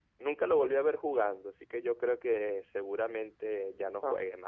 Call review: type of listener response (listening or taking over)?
taking over